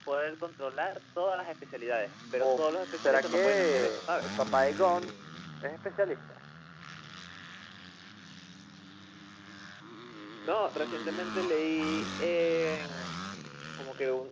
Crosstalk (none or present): present